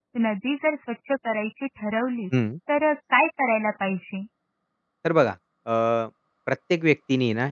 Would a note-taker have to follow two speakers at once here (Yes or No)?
No